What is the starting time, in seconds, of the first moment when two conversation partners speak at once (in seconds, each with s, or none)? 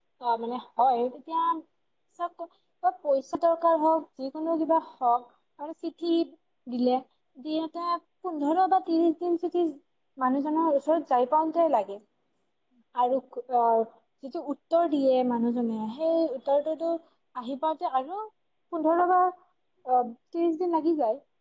none